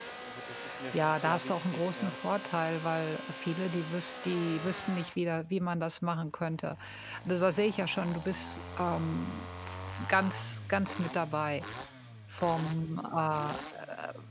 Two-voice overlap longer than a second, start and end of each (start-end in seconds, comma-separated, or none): 0.9-2.1